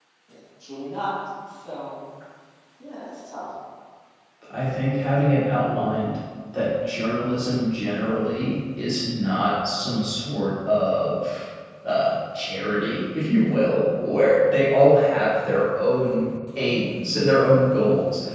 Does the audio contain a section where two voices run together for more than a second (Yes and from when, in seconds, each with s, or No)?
No